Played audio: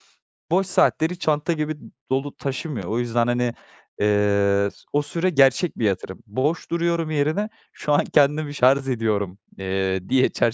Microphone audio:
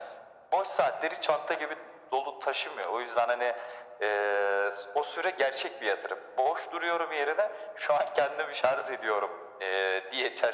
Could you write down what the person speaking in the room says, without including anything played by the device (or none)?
none